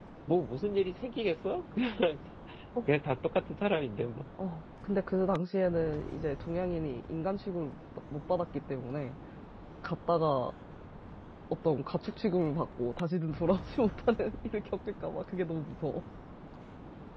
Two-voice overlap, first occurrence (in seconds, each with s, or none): none